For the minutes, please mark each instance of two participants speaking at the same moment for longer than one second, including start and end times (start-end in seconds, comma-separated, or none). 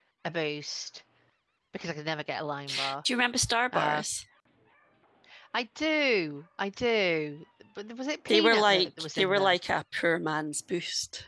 8.3-9.6